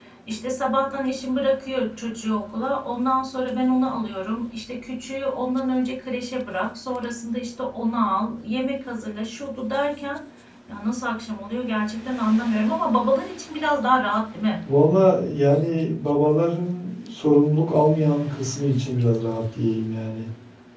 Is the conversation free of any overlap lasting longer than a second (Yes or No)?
Yes